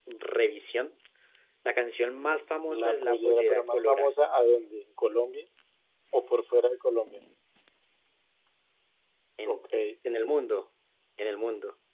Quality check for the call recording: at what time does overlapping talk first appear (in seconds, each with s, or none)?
2.7 s